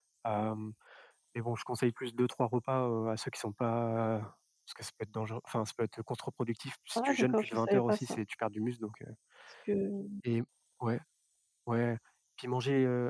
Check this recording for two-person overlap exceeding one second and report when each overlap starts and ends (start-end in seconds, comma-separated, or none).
7.0-8.2